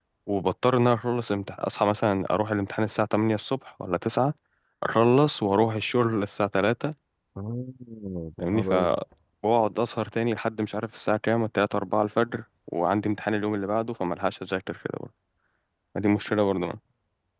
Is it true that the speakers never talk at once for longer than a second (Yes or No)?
Yes